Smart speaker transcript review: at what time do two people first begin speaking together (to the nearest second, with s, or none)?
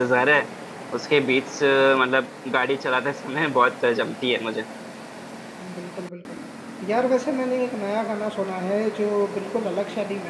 none